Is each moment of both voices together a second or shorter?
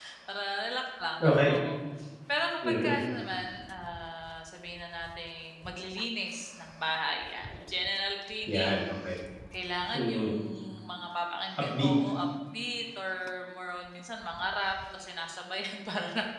Yes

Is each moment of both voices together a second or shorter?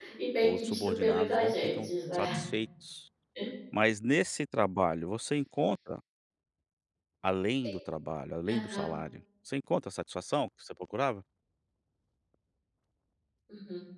No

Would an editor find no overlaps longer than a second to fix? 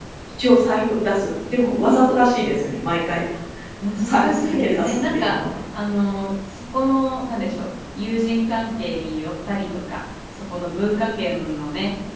No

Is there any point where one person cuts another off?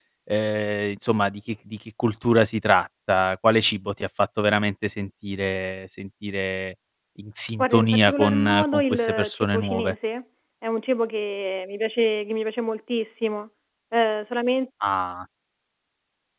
Yes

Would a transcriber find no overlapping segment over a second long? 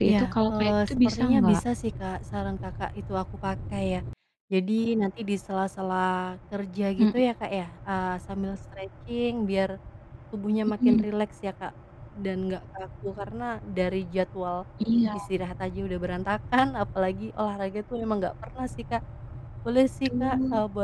No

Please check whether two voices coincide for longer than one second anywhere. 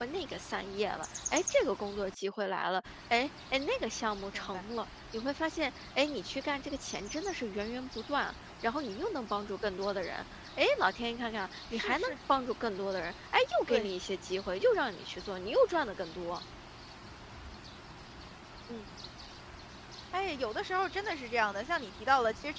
No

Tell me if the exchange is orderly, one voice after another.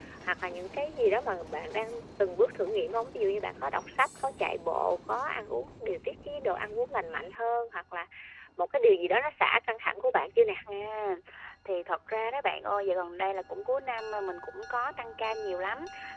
Yes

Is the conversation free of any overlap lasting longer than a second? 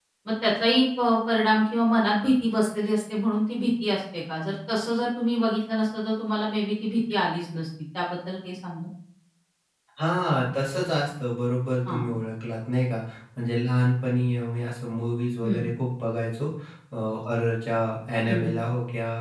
Yes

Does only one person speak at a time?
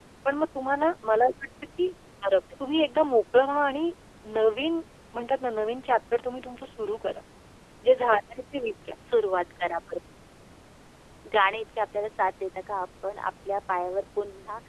Yes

